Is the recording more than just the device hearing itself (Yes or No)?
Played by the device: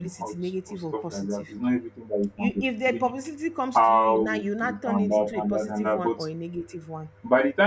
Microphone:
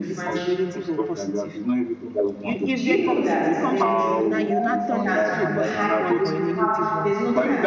Yes